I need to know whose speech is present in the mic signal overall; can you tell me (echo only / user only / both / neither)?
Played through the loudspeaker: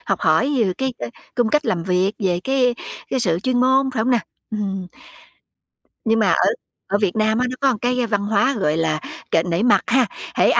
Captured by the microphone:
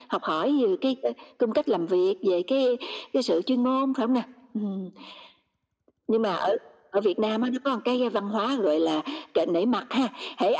echo only